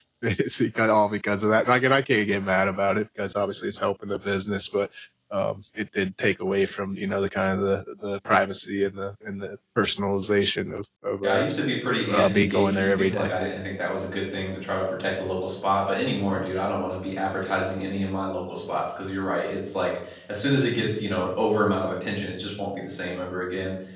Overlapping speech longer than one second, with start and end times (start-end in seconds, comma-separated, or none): 12.1-13.3